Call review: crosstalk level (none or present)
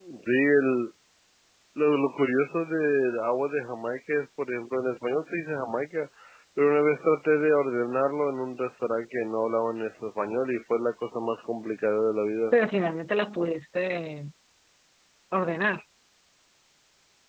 none